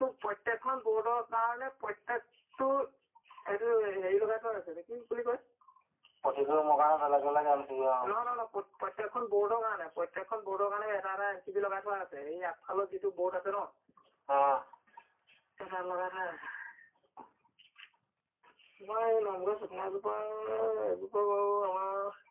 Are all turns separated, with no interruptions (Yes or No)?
Yes